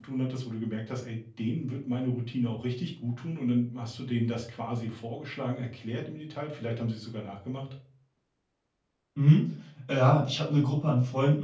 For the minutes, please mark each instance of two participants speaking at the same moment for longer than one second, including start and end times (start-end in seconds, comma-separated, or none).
none